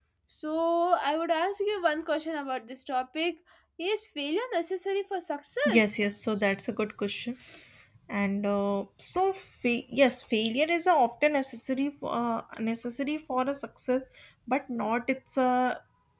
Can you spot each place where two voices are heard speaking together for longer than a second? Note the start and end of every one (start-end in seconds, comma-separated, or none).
none